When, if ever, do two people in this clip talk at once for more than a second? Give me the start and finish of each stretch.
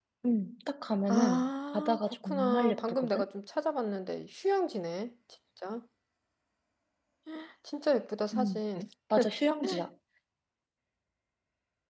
1.1-3.2

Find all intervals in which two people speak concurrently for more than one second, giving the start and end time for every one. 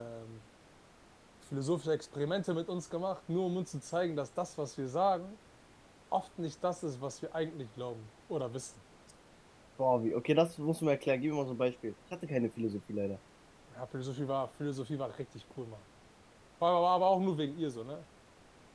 none

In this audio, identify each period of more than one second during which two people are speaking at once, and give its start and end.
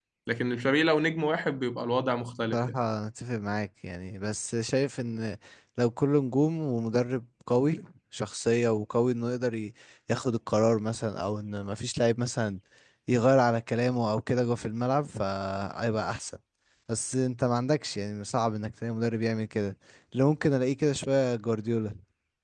none

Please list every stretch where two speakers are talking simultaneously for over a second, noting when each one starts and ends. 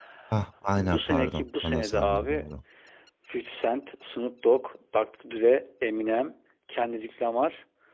0.8-2.4

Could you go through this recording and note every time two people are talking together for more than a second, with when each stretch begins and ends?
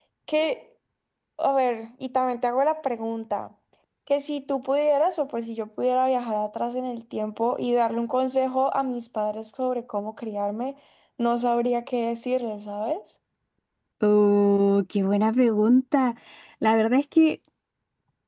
none

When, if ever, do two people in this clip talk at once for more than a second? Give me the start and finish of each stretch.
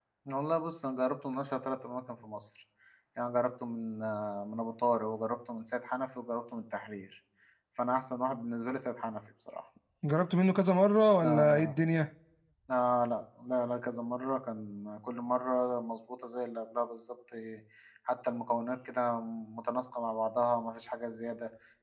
none

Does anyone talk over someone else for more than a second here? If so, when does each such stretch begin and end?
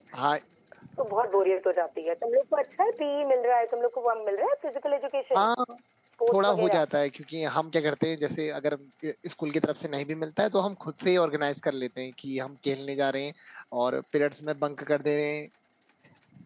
none

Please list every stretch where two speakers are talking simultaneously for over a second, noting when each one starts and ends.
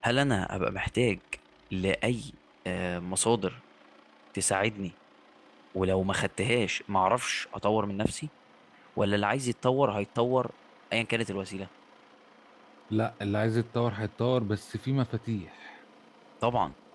none

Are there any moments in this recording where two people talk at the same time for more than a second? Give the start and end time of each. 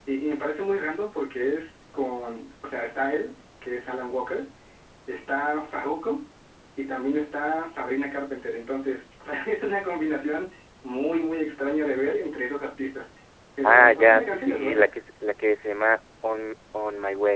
13.6-14.9

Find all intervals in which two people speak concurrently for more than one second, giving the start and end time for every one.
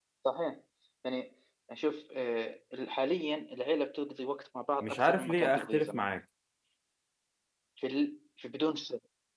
4.8-6.0

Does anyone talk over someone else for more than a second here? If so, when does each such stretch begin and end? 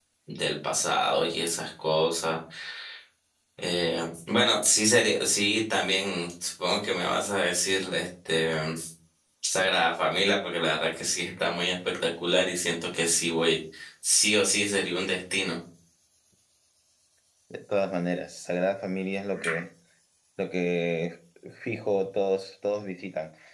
none

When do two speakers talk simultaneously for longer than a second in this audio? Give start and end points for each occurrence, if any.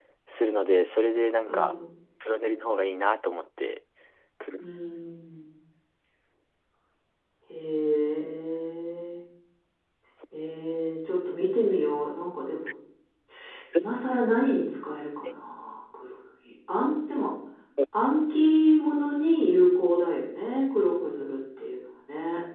none

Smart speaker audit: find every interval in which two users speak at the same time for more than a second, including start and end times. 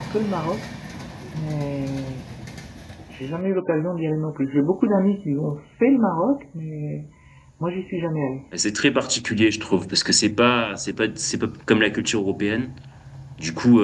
none

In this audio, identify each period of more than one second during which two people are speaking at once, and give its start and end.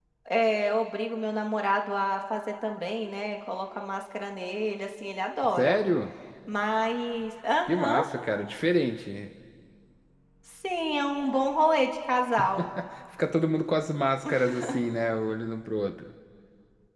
none

